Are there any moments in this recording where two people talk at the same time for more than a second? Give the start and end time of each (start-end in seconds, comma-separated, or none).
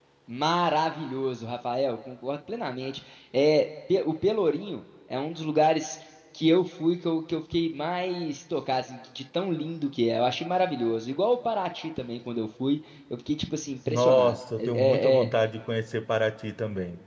13.9-15.3